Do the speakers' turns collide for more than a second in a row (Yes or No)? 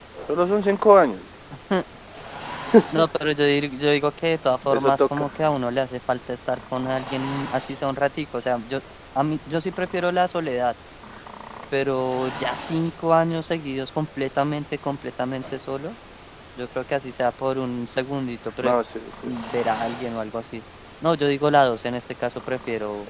No